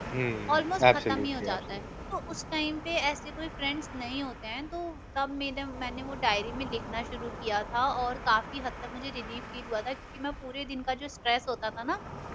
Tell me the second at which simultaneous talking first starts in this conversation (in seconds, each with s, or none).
0.5 s